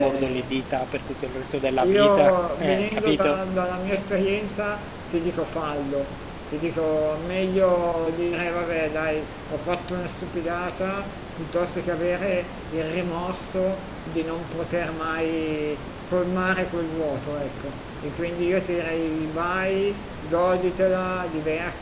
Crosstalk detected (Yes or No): Yes